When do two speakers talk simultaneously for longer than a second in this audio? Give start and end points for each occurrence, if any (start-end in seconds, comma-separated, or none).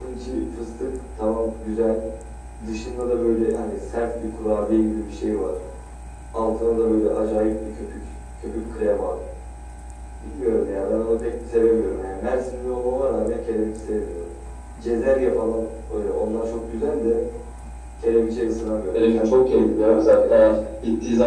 18.9-20.4